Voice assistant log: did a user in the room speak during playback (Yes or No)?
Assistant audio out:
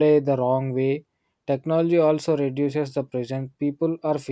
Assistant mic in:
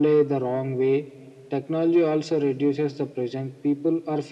No